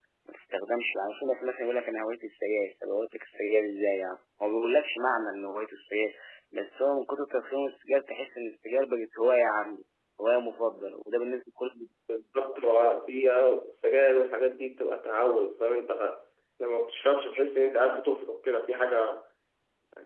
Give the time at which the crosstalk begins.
none

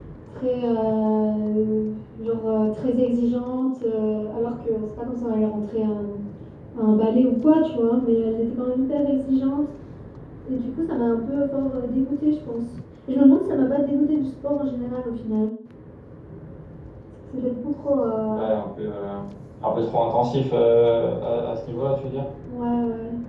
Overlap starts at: none

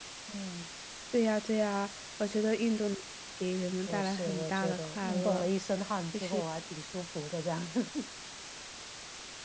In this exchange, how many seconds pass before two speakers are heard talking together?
3.9 s

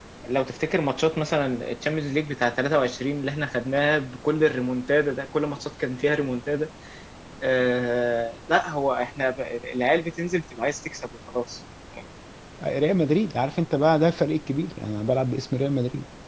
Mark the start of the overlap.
none

